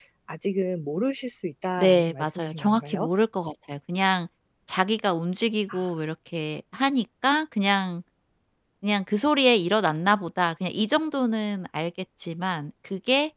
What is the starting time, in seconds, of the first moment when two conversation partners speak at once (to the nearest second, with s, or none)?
2 s